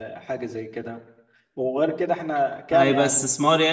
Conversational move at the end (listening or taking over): taking over